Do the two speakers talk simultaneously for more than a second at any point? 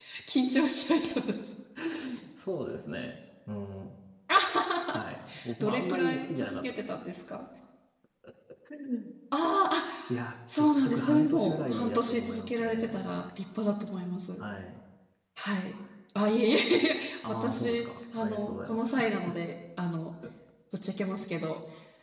Yes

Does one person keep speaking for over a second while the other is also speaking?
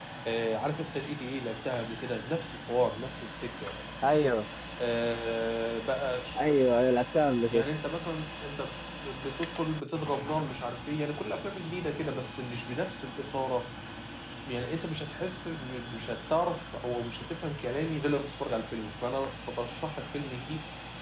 No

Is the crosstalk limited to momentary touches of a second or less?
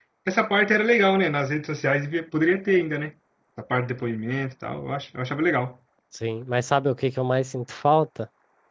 Yes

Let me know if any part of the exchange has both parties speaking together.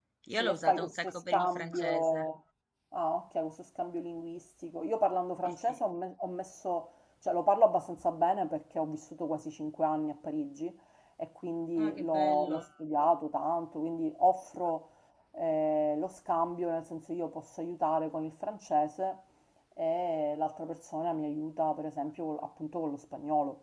Yes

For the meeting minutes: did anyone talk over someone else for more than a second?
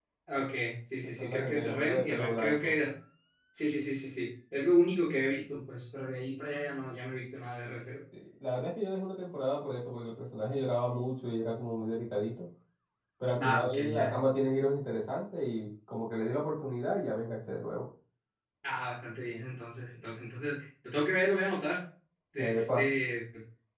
Yes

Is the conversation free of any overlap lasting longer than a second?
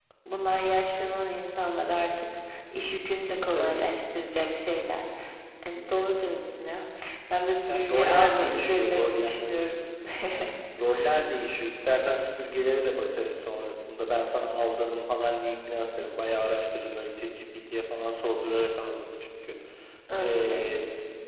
No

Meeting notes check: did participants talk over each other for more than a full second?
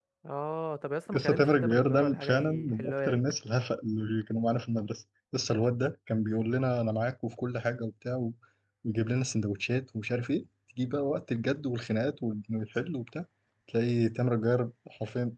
Yes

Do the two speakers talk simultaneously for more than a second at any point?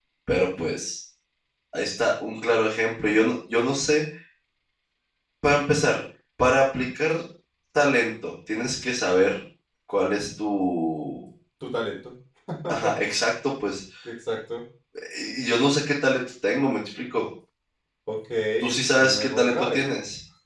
Yes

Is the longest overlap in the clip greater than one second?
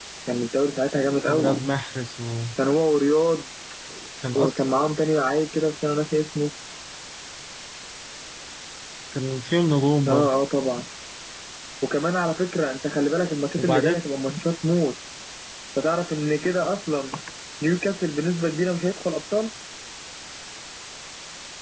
No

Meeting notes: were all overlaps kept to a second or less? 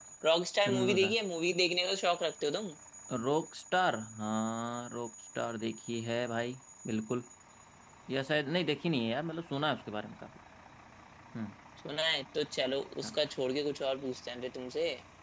Yes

